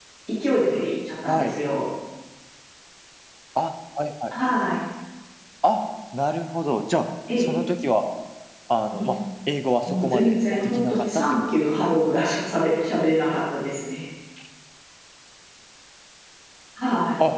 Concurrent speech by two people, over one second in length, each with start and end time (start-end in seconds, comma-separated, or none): 9.9-12.0